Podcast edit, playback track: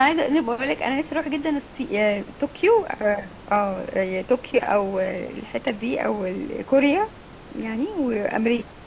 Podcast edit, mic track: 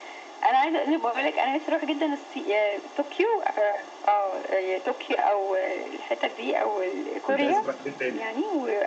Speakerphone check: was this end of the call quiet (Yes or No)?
No